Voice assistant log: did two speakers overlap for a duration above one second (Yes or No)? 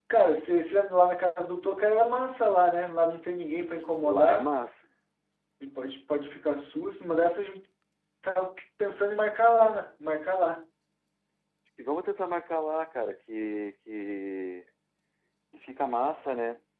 No